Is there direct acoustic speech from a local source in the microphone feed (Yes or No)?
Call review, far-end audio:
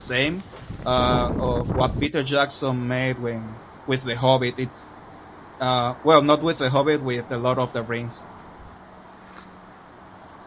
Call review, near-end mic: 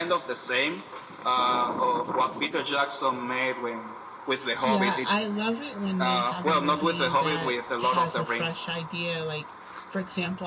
Yes